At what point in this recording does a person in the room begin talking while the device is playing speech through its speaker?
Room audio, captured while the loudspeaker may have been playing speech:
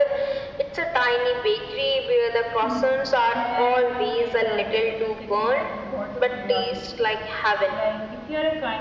2.6 s

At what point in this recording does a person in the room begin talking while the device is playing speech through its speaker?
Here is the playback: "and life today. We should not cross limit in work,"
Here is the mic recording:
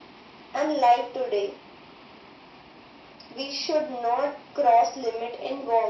none

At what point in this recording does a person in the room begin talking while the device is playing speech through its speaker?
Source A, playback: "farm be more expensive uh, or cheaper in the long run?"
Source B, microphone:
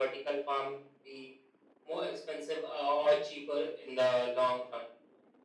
none

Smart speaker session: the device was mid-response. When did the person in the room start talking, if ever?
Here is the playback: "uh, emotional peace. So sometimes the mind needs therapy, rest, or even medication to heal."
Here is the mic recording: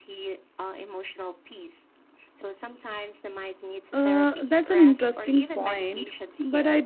3.9 s

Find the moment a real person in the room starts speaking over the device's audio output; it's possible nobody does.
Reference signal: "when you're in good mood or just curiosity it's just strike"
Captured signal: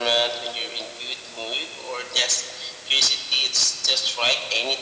none

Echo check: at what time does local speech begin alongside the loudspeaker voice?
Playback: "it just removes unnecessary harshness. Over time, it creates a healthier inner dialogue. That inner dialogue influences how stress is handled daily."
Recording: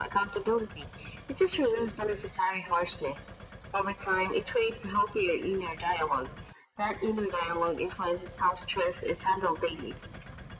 none

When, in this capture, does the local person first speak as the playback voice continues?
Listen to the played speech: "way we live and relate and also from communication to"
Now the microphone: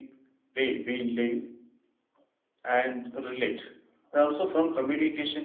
none

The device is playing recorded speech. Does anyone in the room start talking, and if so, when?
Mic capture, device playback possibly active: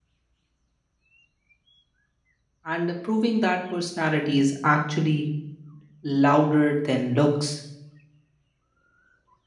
2.6 s

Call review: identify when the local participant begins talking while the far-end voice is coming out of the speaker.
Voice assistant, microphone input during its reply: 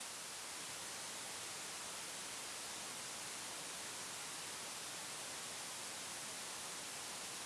none

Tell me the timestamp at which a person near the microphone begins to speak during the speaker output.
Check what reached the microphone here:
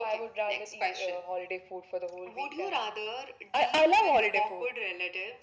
none

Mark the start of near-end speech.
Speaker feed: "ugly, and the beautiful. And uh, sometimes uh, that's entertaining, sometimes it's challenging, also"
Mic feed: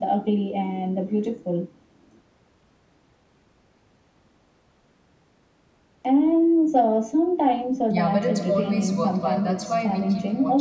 7.9 s

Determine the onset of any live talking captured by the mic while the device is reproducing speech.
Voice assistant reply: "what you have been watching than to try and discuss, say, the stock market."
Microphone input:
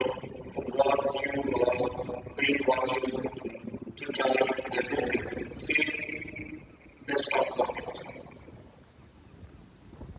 none

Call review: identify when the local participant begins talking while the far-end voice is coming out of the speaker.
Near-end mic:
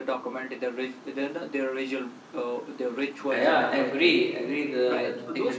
3.3 s

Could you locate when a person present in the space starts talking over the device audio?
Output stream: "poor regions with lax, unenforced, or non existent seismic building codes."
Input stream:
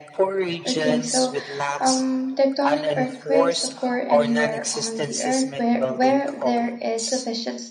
0.7 s

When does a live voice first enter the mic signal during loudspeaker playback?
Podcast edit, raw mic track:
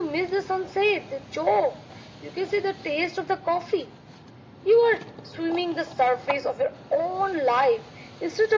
none

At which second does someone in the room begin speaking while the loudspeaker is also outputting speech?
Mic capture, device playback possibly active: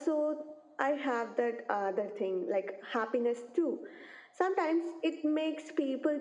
none

